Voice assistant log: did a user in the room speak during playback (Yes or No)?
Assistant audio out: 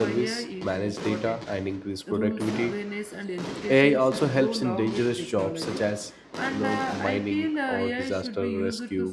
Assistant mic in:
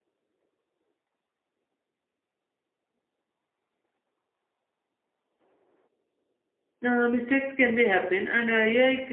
Yes